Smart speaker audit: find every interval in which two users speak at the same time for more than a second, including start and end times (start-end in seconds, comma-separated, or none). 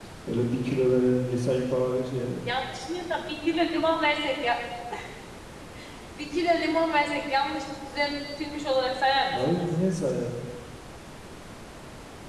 none